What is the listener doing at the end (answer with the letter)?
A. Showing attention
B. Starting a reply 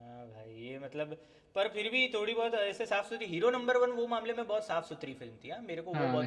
B